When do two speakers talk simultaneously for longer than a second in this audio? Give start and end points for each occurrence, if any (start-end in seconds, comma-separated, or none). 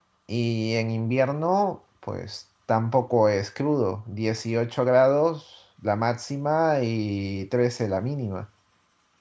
none